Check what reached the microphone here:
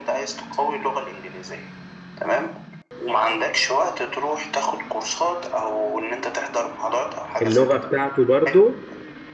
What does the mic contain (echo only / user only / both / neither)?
both